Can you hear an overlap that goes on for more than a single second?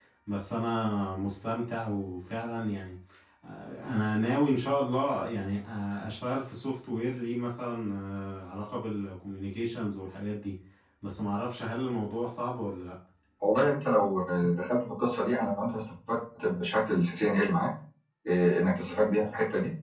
No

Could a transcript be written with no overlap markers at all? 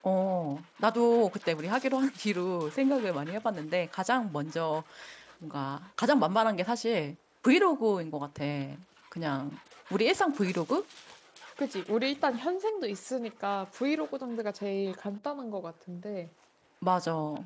Yes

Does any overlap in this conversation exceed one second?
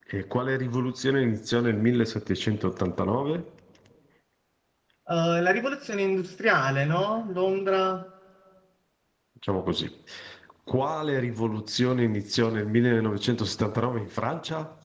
No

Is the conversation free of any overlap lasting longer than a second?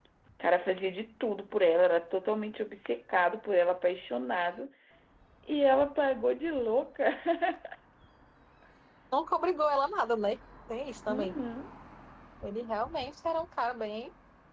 Yes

